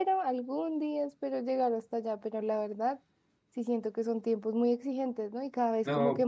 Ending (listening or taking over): listening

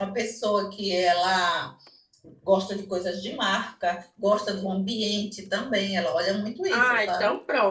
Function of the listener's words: taking over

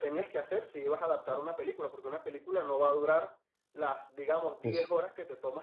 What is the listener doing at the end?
listening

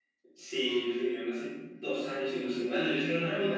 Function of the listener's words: listening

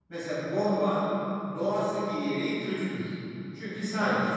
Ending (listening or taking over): listening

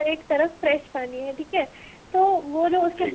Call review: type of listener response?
listening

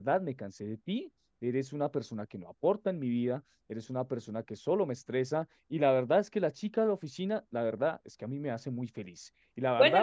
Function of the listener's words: taking over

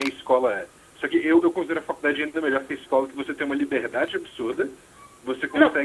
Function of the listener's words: listening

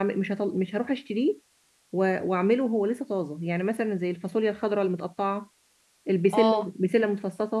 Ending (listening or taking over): listening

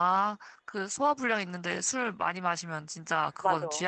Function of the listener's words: taking over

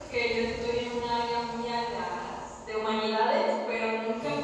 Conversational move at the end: listening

